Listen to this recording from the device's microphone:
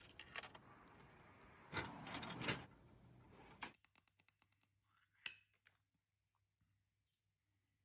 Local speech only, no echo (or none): none